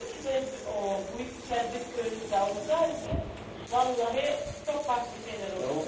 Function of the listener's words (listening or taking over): taking over